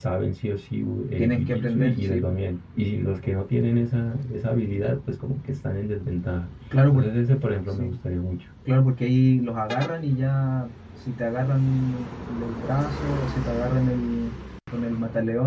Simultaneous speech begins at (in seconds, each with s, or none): 1.2 s